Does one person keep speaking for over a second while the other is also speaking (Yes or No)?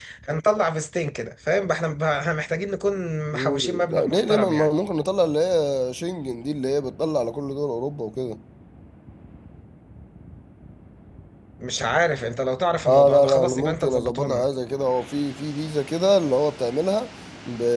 Yes